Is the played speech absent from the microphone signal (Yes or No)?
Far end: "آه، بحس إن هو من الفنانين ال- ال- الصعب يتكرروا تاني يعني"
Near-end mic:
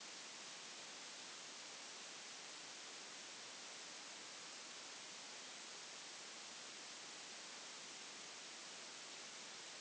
Yes